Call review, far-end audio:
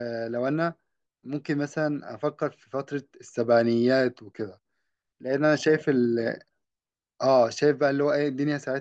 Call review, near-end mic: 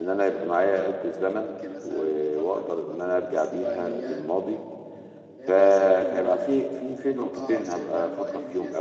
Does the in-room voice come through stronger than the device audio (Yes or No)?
Yes